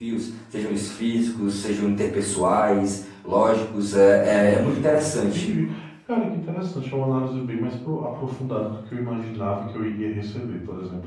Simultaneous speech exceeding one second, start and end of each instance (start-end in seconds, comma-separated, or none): 4.2-5.5